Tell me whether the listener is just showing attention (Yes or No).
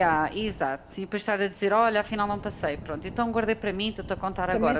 No